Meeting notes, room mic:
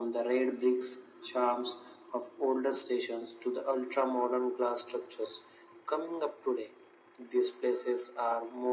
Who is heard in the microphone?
echo only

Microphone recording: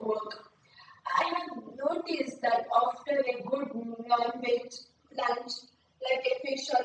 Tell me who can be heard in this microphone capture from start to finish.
echo only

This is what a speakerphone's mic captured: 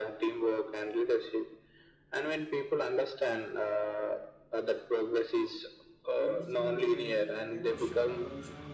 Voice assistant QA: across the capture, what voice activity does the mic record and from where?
both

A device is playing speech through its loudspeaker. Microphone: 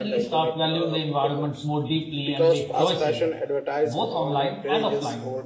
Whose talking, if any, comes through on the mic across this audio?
both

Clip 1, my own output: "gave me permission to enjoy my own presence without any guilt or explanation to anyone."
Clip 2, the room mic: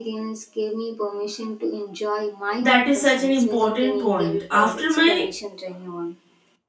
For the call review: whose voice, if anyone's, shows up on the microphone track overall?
both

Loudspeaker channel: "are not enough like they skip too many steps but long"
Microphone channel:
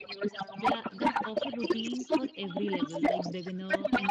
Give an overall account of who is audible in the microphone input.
both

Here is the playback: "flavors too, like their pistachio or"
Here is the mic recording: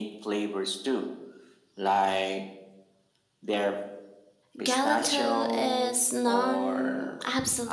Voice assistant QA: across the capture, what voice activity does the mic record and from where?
both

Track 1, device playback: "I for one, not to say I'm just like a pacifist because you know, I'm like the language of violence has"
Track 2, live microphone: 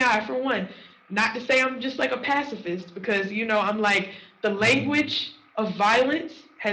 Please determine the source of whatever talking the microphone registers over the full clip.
both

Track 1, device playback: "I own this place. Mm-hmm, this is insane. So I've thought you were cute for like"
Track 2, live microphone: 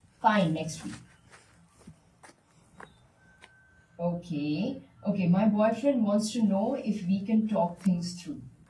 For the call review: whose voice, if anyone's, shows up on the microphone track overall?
user only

